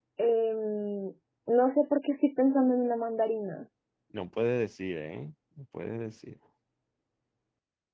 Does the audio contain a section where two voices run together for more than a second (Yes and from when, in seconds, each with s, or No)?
No